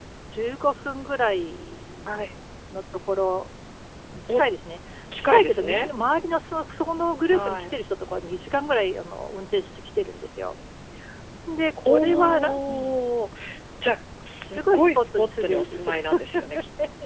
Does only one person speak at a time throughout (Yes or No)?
No